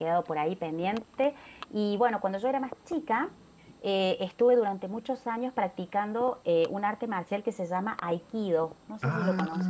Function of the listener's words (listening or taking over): taking over